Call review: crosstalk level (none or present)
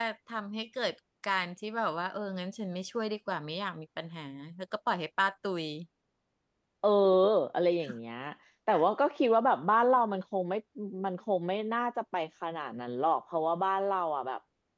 none